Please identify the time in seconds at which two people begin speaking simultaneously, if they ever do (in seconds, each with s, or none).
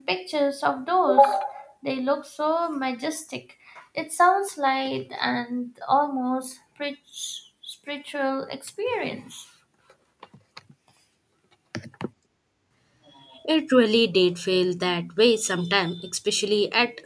none